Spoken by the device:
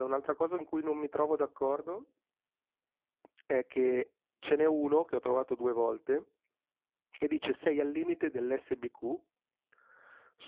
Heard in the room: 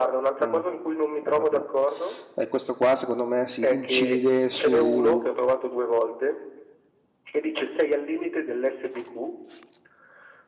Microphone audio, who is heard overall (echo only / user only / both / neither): both